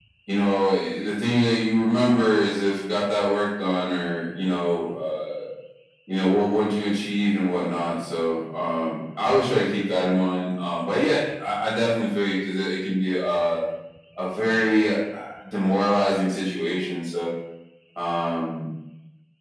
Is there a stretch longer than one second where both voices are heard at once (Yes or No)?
No